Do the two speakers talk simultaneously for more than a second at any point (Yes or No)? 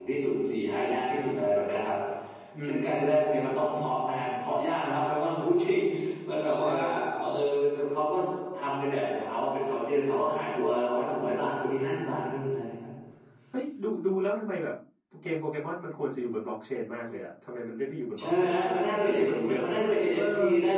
Yes